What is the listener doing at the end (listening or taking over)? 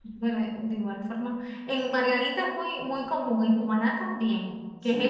taking over